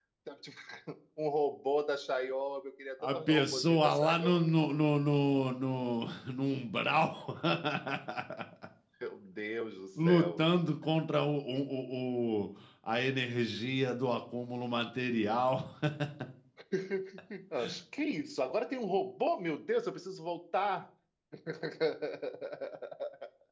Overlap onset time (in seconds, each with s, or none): 3.0 s